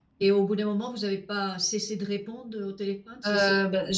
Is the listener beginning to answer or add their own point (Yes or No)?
Yes